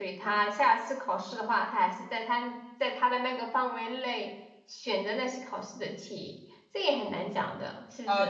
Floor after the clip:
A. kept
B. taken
B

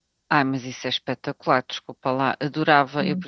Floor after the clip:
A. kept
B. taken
A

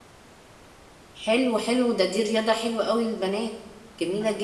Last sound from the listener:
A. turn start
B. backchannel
A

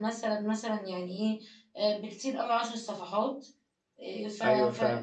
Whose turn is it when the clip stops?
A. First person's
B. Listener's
A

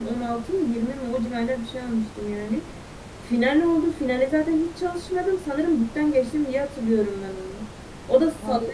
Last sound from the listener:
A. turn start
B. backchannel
B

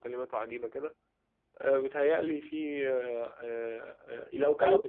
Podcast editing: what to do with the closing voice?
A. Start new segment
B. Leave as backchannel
B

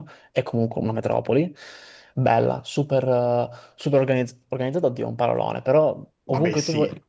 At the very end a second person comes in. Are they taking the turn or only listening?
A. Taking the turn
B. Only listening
B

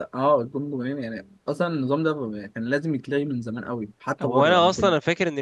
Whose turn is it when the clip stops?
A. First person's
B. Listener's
B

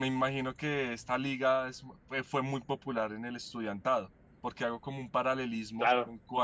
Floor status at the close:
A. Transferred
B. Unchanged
B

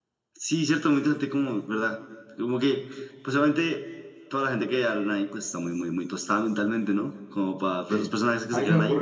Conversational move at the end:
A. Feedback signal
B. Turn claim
B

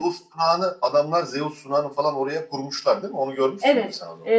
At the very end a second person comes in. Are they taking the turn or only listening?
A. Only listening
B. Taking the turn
B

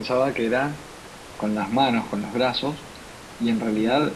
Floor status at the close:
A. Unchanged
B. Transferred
A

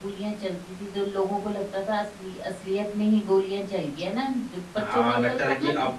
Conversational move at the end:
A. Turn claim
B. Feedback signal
A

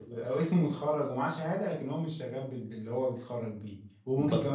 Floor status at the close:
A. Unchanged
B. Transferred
A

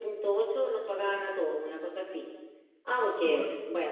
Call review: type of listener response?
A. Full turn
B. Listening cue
B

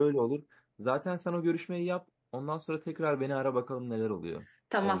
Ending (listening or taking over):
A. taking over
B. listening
A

